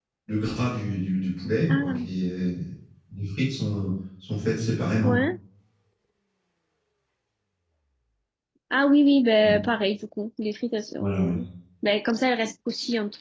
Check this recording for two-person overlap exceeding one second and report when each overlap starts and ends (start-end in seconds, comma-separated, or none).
none